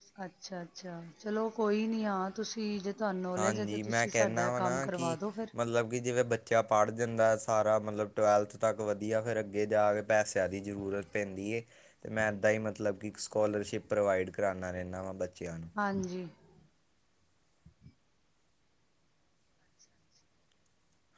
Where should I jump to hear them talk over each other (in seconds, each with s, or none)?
3.4 s